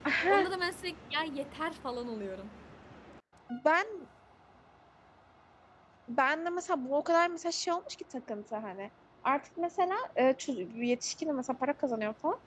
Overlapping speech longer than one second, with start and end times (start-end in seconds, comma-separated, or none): none